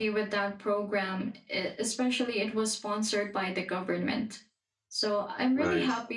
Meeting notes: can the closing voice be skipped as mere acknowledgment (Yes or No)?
Yes